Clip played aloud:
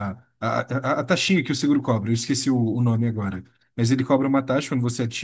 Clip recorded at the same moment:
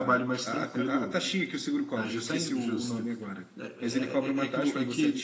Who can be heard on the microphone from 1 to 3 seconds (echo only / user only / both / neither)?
both